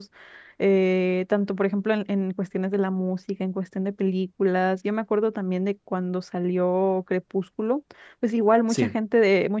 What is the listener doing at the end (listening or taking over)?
listening